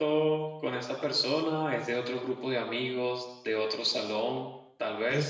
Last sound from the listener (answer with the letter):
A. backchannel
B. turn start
A